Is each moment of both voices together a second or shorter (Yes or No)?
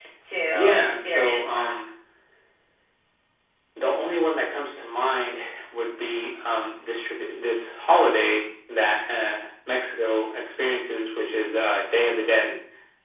No